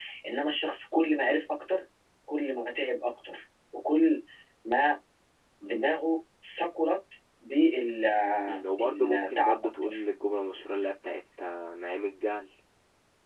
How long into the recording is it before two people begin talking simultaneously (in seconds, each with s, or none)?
8.4 s